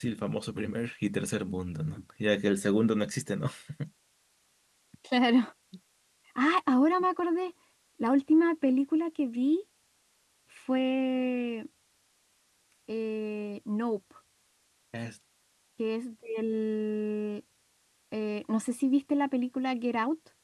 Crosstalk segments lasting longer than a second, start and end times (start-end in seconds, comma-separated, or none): none